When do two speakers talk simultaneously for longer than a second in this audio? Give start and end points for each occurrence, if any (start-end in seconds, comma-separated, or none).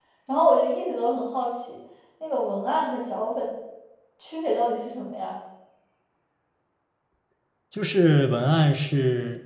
none